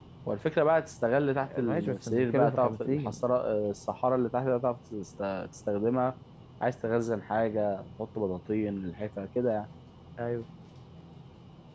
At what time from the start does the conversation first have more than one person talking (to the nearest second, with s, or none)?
1 s